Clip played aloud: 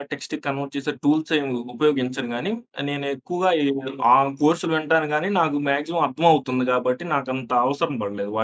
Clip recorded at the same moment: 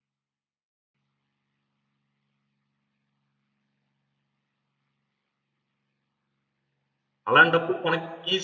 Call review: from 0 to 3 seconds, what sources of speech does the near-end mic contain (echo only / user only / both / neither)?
neither